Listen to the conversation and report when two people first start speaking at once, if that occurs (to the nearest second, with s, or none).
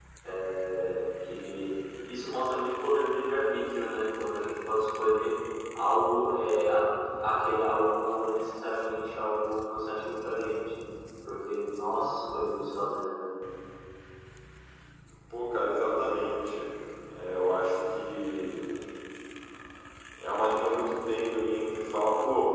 none